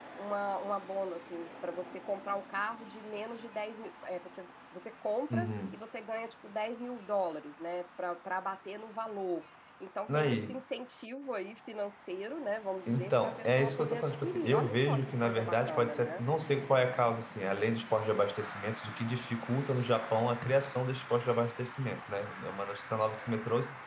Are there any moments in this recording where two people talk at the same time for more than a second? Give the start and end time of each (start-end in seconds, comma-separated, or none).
12.9-16.2